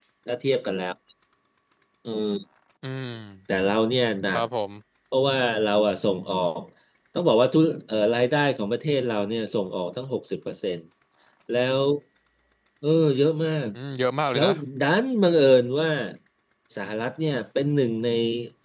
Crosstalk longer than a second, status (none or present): none